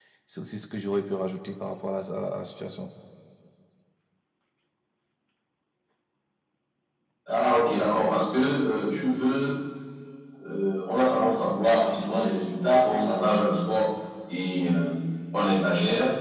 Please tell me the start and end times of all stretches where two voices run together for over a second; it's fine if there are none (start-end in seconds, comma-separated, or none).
none